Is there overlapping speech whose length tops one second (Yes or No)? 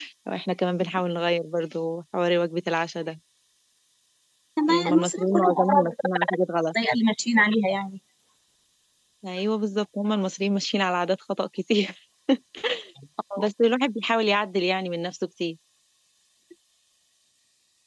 Yes